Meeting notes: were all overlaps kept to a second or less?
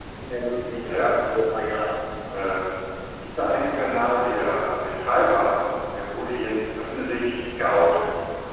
Yes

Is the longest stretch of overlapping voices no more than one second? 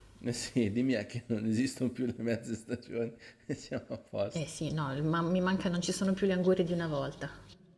Yes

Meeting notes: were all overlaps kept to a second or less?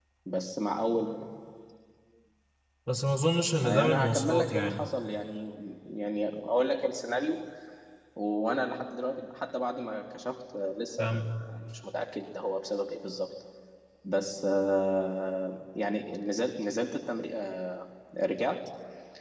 No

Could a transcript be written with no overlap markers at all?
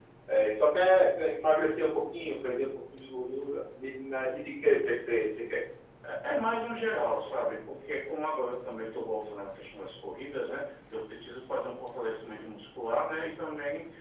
Yes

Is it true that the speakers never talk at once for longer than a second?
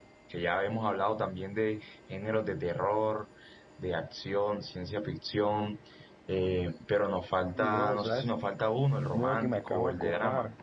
No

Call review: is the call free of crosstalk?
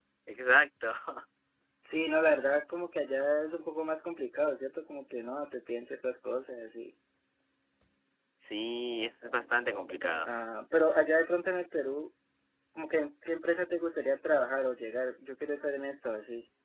Yes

